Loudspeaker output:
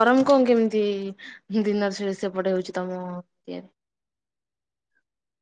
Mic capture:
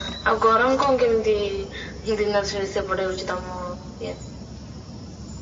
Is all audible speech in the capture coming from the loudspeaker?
Yes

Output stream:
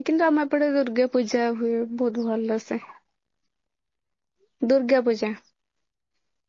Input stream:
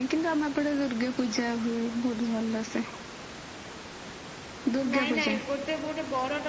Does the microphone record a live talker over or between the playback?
Yes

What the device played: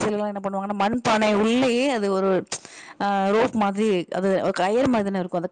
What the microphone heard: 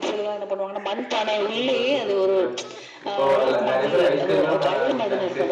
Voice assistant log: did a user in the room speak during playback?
Yes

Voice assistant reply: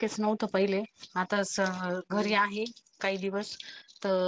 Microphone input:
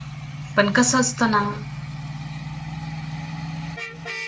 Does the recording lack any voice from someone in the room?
No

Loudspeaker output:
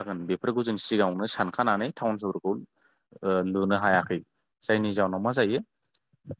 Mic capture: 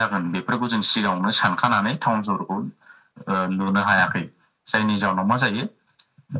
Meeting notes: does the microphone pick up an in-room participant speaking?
No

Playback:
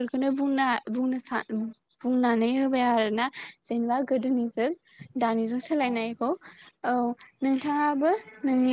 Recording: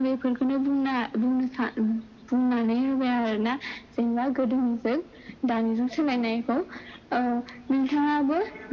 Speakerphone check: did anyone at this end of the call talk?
No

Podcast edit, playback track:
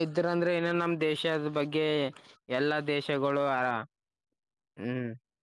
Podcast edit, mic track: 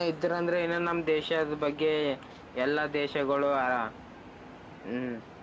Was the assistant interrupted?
No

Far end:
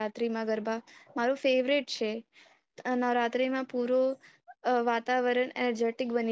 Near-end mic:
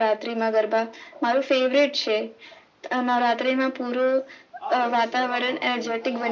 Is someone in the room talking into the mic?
Yes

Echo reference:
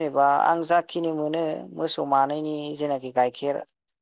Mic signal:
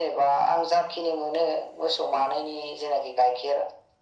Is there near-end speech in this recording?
No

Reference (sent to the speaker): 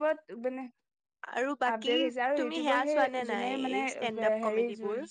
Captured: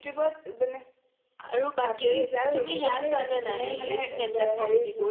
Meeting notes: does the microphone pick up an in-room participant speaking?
No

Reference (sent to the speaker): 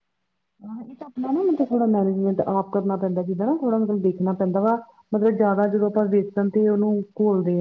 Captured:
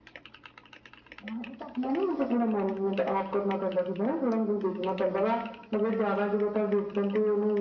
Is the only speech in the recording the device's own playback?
Yes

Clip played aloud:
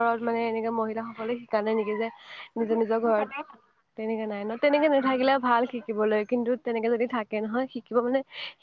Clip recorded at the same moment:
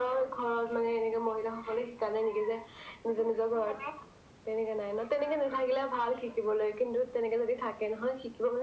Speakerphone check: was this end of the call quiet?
Yes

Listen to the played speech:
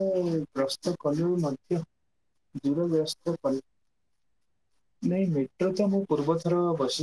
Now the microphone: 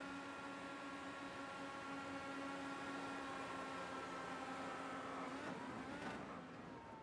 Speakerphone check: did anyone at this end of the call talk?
No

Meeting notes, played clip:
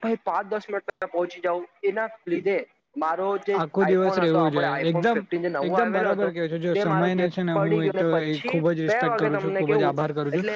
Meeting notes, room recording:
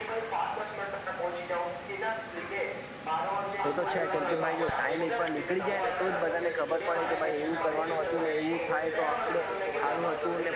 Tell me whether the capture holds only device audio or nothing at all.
No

